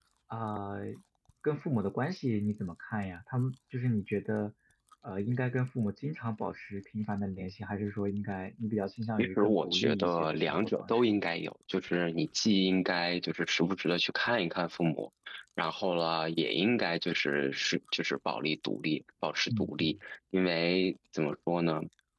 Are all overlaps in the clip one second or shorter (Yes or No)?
No